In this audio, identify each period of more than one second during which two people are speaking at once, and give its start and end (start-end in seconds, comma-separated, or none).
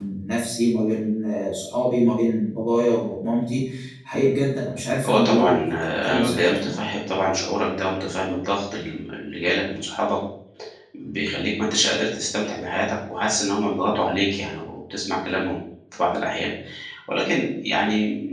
5.0-6.9